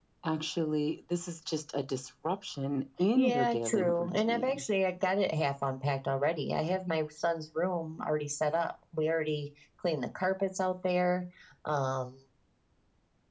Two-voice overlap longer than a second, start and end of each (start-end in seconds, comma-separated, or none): 3.1-4.6